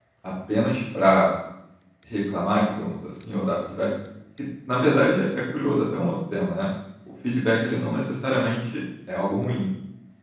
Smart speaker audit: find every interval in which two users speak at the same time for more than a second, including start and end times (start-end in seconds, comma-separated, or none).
none